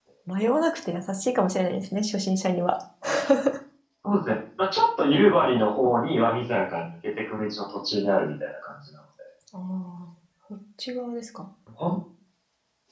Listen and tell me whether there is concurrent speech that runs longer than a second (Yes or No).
No